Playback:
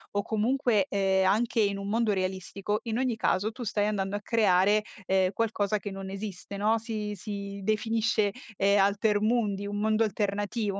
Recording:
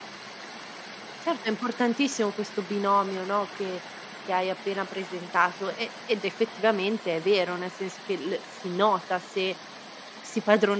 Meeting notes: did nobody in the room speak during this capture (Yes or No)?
No